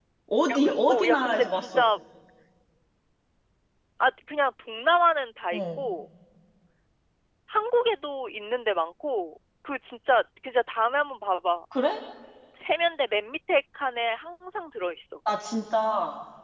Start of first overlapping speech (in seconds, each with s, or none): 0.5 s